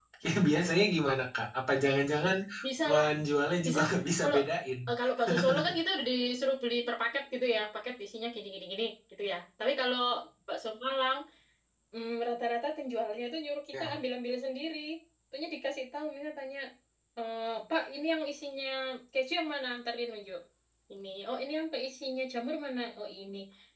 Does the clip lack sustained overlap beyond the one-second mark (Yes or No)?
Yes